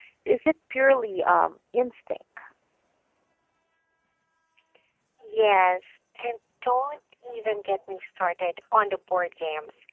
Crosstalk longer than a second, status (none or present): none